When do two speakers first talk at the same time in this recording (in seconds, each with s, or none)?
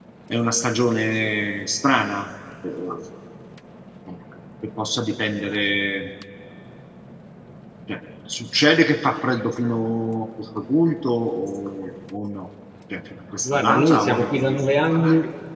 13.4 s